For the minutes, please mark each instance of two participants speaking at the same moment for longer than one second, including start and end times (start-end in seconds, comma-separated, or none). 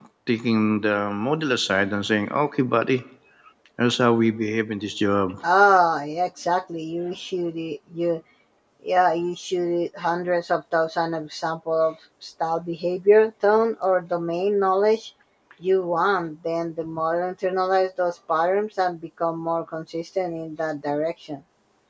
none